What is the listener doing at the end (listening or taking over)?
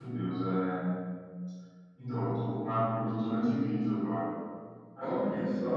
taking over